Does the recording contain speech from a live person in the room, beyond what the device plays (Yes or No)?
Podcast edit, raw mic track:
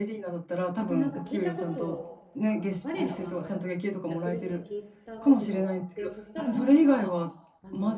Yes